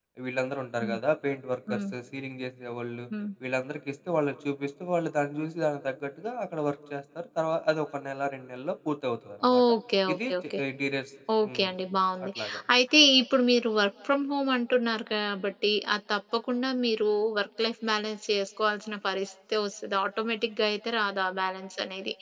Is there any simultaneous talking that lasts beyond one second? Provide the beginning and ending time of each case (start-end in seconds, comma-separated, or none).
none